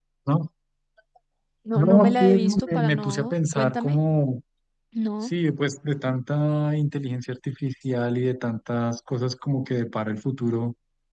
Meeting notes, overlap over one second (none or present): present